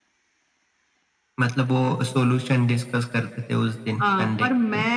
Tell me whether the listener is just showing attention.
No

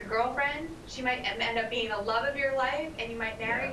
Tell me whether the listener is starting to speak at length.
No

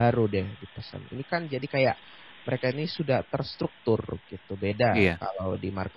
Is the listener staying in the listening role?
Yes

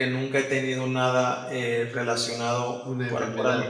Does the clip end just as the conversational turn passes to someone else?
Yes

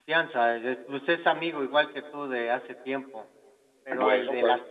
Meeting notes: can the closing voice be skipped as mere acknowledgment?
Yes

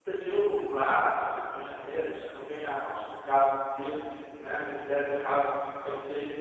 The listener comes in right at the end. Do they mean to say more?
No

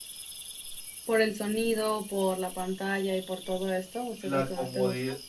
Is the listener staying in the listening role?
No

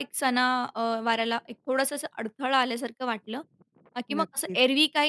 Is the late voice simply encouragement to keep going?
Yes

